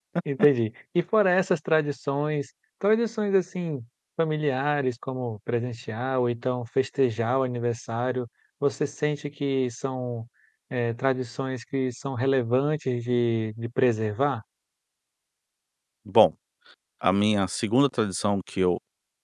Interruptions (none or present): none